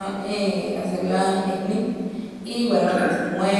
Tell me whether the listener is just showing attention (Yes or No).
Yes